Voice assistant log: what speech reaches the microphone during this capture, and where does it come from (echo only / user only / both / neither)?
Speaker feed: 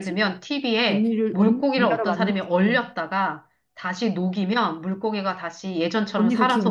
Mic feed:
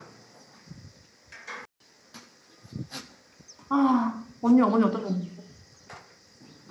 user only